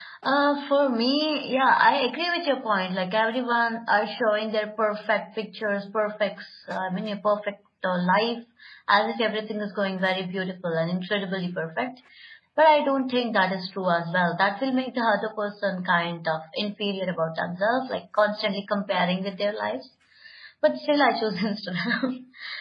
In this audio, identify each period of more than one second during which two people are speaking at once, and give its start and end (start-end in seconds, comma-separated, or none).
none